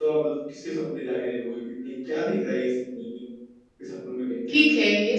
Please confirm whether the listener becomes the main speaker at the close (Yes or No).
Yes